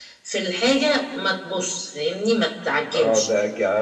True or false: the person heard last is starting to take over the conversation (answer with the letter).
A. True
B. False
A